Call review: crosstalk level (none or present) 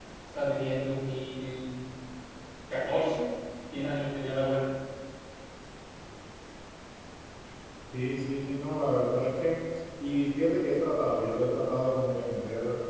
none